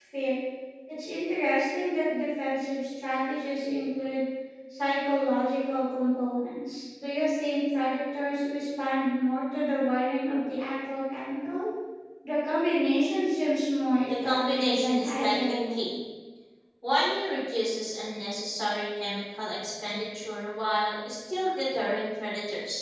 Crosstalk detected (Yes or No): Yes